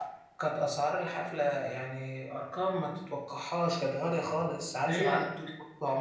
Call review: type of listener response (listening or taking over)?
listening